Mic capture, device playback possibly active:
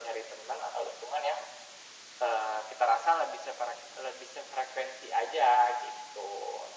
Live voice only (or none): none